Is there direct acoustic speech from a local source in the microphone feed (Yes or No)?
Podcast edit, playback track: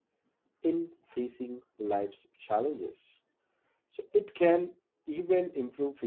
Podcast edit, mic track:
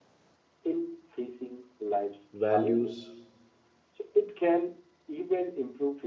Yes